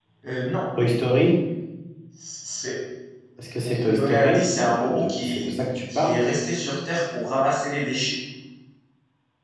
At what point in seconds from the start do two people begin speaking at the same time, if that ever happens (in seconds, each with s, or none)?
3.7 s